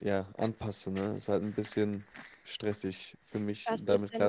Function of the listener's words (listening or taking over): taking over